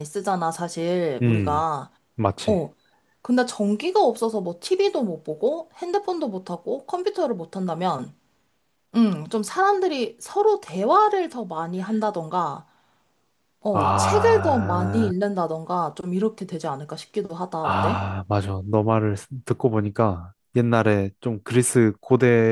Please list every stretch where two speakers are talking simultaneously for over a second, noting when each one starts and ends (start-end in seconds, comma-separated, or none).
13.7-15.1